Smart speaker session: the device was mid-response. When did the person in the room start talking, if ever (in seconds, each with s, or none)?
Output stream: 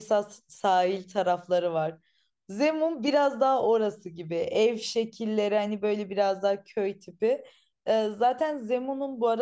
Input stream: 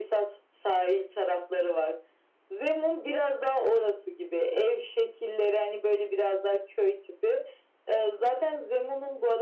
none